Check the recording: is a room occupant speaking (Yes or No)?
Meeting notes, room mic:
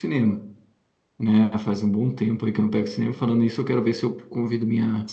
Yes